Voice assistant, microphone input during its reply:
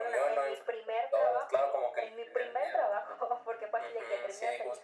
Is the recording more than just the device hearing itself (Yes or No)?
No